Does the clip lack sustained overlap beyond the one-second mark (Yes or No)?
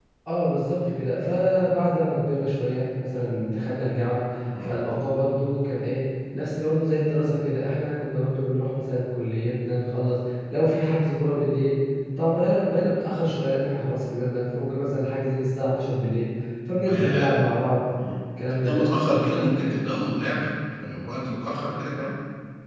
Yes